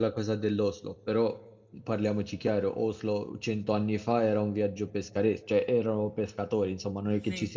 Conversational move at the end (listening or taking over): listening